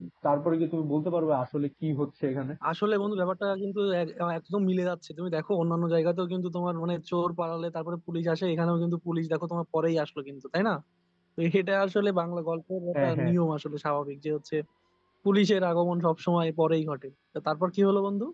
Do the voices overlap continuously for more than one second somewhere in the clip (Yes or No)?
No